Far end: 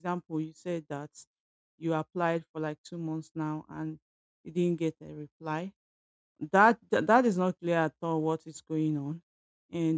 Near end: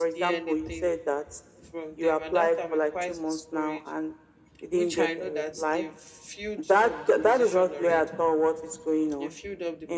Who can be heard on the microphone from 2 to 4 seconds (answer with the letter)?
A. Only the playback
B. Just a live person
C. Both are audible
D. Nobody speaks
C